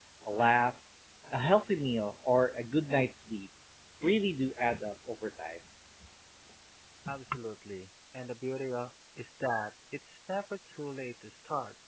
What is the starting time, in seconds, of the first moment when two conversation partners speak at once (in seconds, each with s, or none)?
none